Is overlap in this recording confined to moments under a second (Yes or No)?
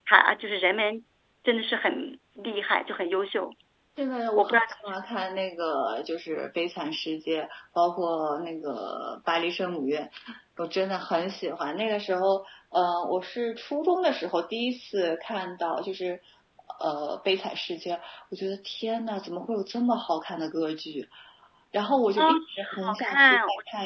No